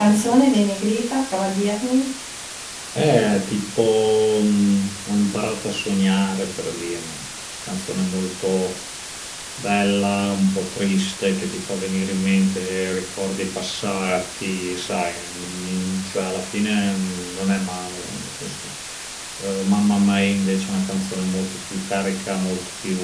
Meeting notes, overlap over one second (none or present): none